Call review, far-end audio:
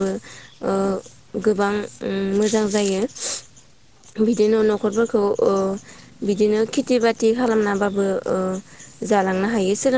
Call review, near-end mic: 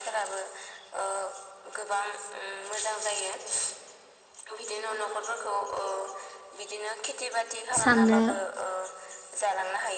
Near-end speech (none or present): present